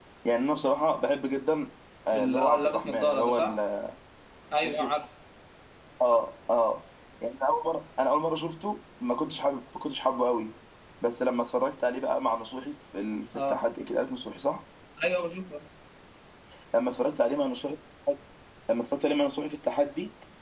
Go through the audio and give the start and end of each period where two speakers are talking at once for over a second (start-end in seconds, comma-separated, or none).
2.1-3.6